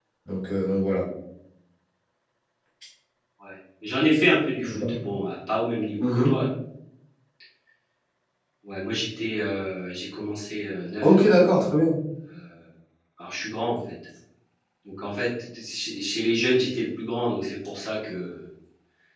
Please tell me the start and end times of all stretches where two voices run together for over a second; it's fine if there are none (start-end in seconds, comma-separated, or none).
none